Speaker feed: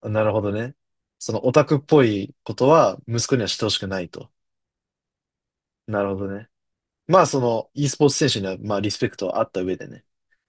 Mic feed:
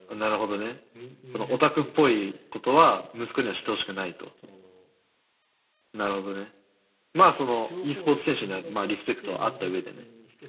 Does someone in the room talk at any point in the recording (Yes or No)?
Yes